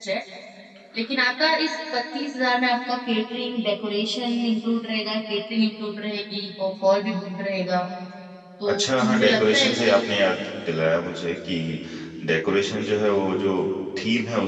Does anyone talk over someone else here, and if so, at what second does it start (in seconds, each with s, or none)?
8.7 s